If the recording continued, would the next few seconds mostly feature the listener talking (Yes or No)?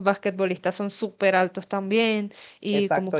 Yes